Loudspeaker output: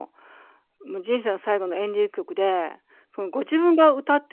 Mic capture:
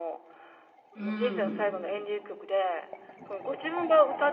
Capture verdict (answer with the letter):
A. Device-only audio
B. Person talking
B